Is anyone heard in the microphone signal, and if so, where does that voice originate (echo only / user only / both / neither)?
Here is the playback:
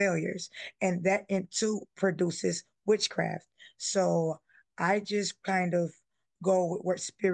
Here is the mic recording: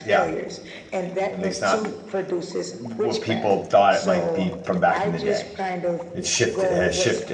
both